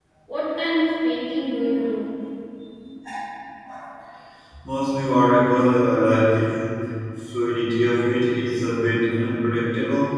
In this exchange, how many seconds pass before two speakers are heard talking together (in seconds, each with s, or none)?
none